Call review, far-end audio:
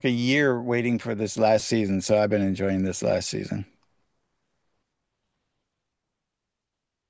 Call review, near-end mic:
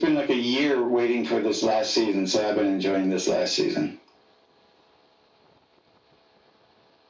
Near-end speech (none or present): none